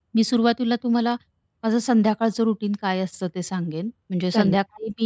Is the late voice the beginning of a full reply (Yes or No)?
No